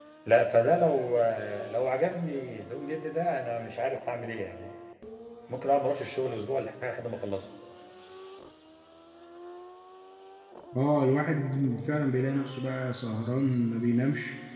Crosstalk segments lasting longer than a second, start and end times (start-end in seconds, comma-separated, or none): none